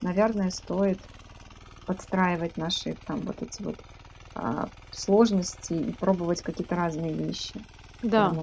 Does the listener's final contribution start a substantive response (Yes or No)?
Yes